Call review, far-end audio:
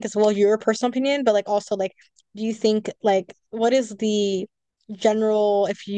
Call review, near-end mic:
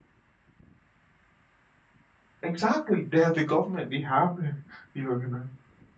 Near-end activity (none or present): present